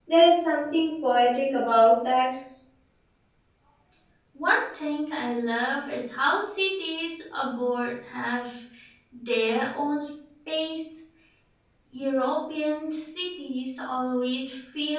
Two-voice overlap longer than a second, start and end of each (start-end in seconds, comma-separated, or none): none